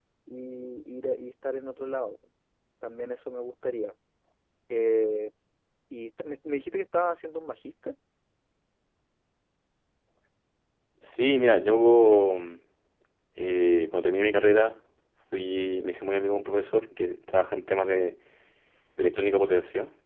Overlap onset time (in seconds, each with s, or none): none